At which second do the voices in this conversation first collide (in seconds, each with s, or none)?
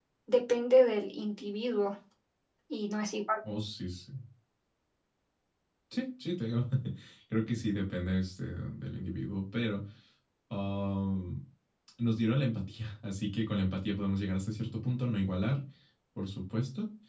none